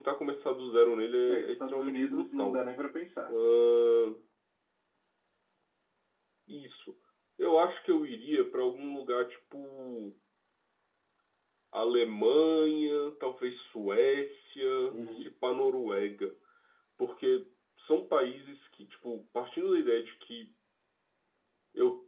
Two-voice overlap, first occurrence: 1.3 s

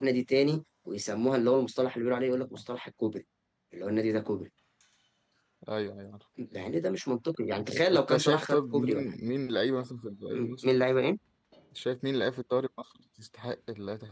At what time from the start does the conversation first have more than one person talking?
7.6 s

